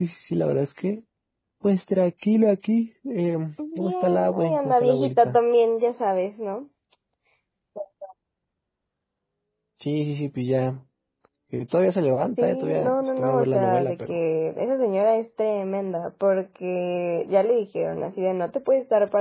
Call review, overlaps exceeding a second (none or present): present